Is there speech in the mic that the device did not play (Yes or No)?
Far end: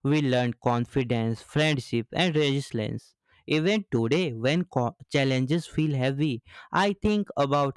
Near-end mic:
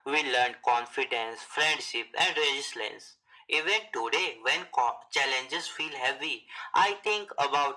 No